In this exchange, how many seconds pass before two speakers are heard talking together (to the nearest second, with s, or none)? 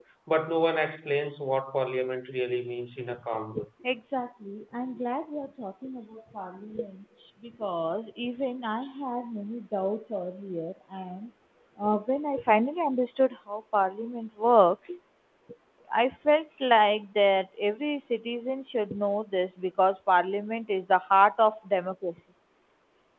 none